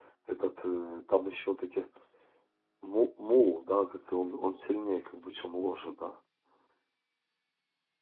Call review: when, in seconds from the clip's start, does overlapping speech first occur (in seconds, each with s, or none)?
none